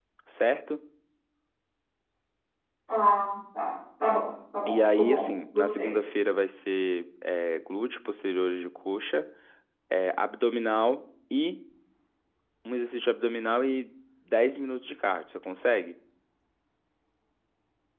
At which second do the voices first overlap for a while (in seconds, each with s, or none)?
4.7 s